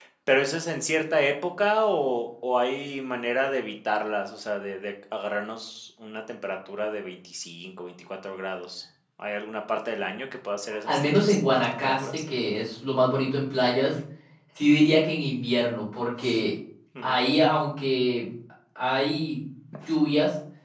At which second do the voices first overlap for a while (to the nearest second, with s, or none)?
11 s